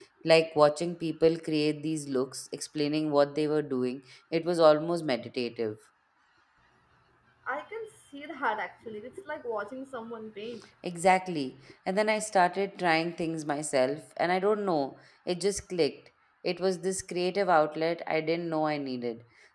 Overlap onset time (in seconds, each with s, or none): none